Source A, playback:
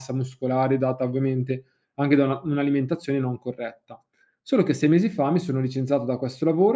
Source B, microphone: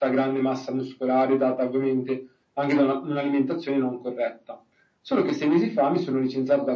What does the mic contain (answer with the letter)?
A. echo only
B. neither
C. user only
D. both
A